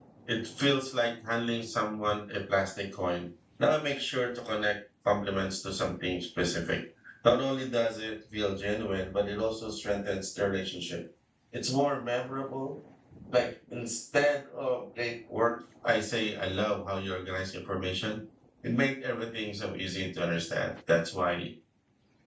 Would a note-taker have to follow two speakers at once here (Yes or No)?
No